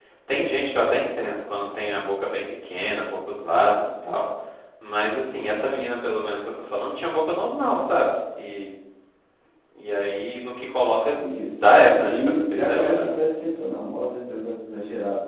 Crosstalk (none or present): present